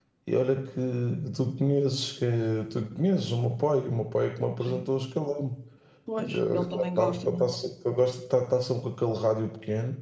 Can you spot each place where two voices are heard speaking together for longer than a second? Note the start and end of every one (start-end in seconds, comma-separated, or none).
6.2-7.5